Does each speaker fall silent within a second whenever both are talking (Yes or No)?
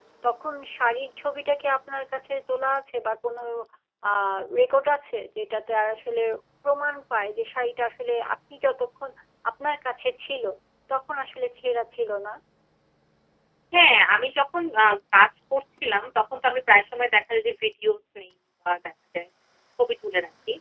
Yes